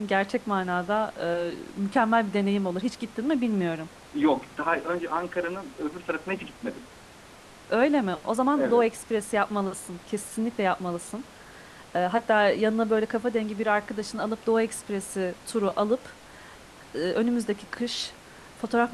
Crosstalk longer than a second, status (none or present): none